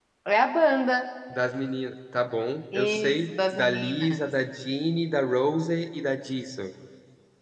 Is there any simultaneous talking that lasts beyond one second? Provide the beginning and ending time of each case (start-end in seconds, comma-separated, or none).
2.8-4.2